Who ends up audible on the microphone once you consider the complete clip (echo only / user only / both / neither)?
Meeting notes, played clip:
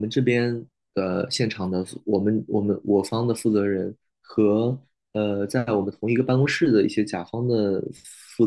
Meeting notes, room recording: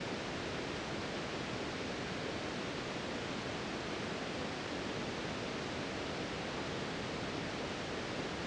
neither